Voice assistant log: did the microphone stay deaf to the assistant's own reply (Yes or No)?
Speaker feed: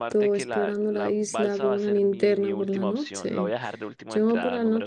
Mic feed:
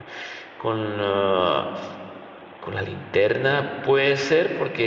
Yes